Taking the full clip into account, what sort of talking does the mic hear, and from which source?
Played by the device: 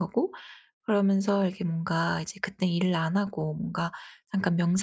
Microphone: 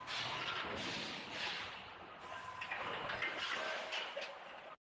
neither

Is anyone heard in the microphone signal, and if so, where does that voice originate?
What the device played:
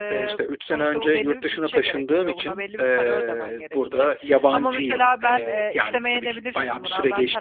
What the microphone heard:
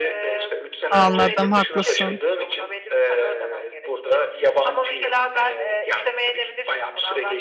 both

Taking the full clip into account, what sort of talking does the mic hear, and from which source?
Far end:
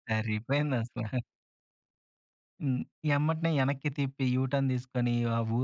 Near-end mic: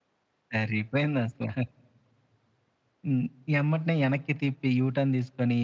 echo only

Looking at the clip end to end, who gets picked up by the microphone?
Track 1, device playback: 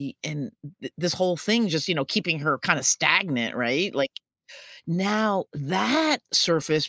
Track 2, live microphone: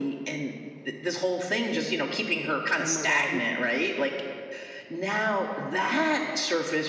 both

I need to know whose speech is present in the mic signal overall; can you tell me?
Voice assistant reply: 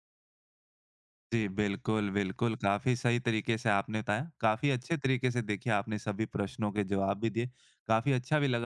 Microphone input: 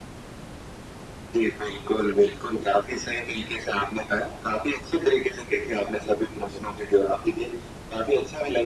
echo only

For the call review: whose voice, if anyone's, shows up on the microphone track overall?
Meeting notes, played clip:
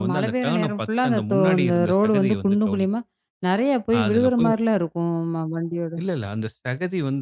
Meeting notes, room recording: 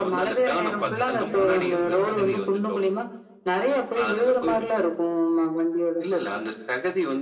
both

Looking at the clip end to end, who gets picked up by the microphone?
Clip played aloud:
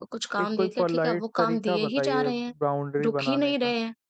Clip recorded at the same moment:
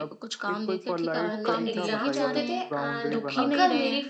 both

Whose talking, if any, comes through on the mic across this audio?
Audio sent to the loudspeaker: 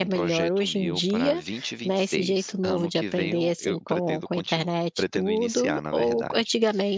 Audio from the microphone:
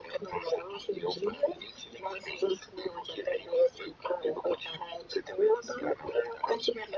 echo only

